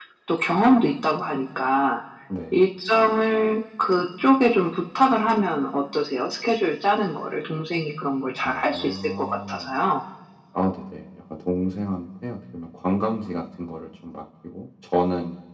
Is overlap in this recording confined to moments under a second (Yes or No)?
No